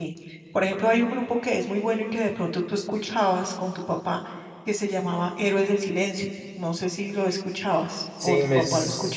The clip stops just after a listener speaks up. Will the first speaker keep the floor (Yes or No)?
No